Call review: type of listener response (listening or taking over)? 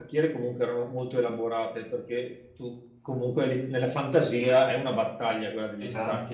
listening